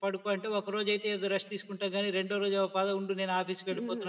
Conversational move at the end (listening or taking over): taking over